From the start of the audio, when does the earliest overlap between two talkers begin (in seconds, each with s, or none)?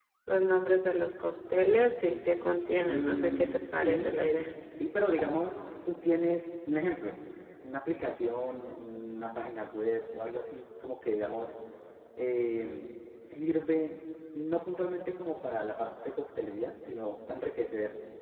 2.9 s